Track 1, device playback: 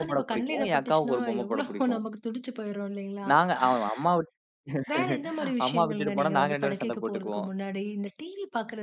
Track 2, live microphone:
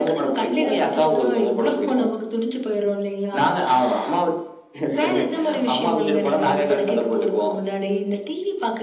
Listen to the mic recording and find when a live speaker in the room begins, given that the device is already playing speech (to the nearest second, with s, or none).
none